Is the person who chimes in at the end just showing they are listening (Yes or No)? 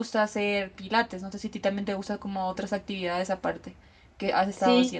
No